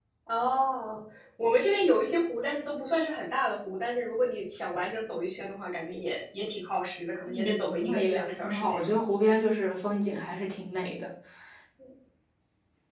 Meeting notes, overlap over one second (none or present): present